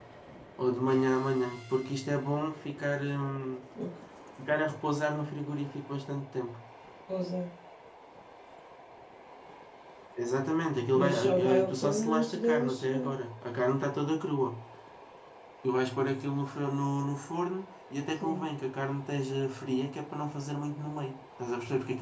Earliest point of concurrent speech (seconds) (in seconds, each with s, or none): 10.9 s